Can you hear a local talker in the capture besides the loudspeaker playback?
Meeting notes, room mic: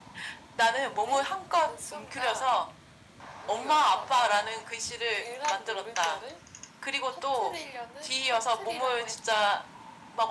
No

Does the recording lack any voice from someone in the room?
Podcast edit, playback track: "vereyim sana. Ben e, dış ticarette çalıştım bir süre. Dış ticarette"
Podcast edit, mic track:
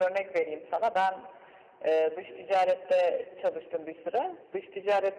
Yes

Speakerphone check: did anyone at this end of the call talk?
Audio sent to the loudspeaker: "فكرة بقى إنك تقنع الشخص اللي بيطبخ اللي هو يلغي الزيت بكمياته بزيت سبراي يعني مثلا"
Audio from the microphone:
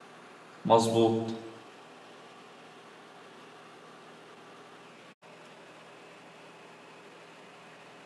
Yes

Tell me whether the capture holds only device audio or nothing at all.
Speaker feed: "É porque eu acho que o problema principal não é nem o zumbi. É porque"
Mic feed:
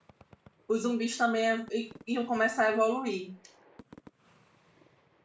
No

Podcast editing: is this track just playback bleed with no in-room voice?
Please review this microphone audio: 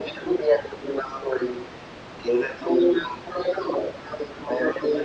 Yes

